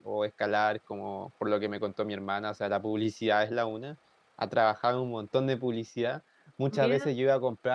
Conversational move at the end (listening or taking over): listening